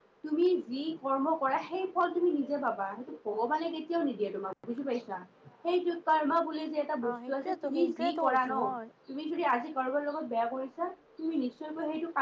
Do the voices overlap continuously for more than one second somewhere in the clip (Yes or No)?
Yes